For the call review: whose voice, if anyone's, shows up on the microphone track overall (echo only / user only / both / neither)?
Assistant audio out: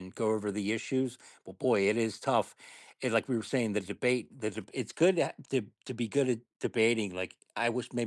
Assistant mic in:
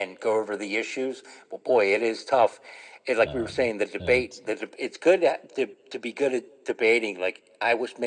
both